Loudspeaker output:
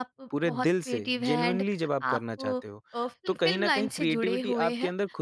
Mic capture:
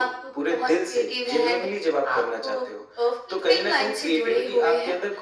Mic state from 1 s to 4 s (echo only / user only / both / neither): echo only